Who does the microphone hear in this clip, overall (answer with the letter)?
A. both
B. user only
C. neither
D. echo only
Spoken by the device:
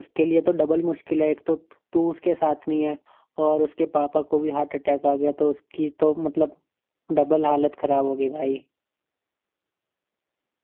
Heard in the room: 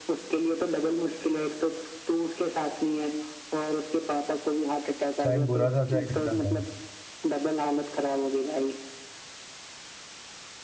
A